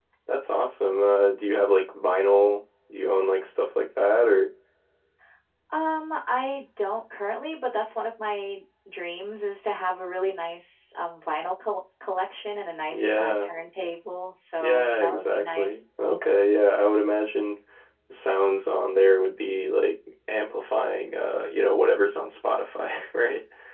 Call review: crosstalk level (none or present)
present